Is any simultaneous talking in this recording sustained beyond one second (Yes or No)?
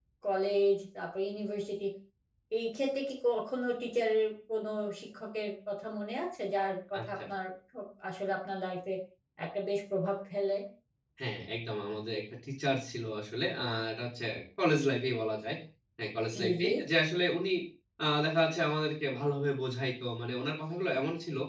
No